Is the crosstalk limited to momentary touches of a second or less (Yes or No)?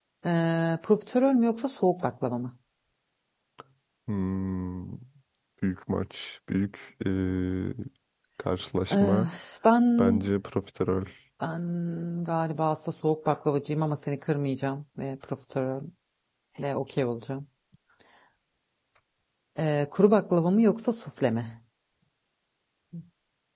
Yes